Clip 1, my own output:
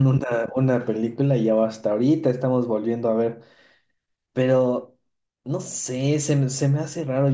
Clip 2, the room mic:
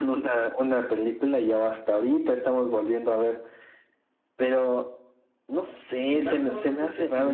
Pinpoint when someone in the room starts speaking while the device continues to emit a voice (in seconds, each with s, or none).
6.1 s